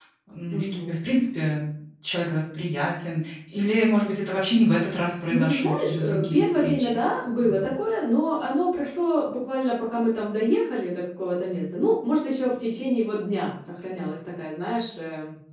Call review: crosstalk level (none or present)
present